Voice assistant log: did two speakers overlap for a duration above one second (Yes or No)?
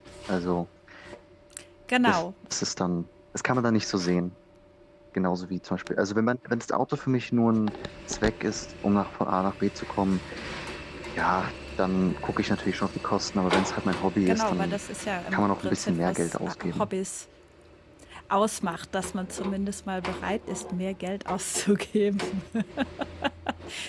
Yes